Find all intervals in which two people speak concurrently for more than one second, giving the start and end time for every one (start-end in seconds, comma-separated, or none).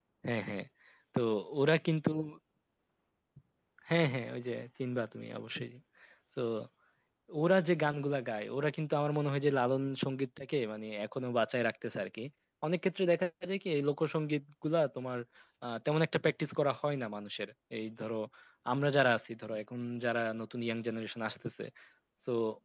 none